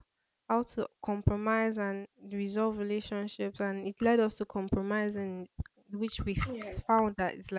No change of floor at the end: Yes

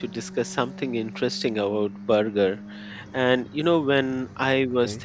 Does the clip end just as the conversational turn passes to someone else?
No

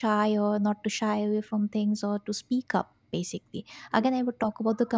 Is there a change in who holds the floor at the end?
No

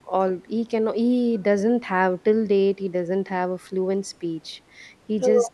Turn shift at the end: No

